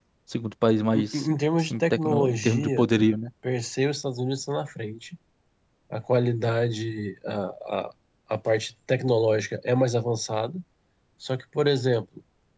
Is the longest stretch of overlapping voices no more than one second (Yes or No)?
No